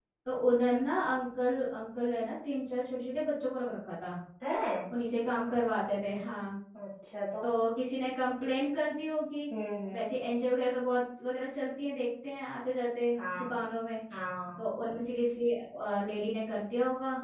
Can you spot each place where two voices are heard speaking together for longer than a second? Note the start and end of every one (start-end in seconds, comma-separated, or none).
none